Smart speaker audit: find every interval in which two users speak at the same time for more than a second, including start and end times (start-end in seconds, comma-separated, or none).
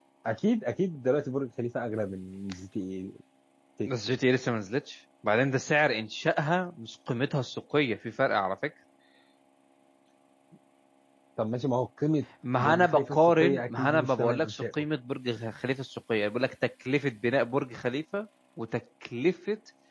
12.6-14.8